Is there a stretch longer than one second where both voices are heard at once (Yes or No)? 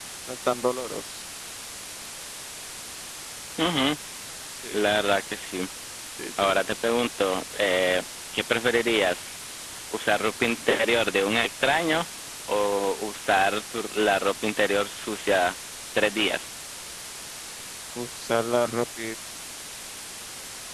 No